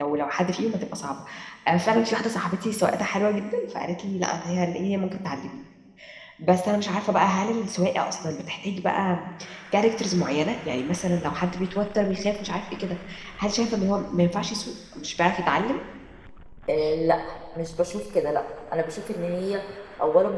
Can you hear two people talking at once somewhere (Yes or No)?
No